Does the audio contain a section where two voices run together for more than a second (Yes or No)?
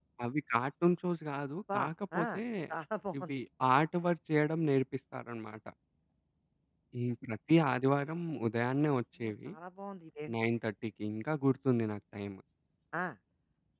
No